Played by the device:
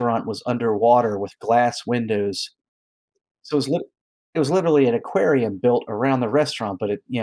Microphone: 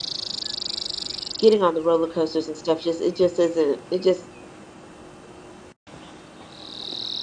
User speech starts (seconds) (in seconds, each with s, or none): 1.4 s